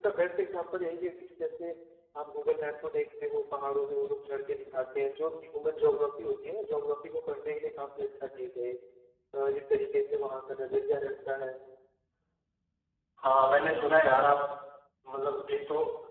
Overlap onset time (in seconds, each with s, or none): none